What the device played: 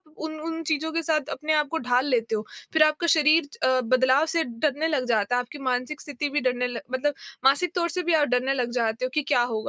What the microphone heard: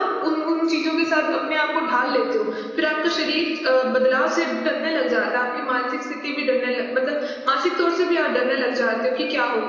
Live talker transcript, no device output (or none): none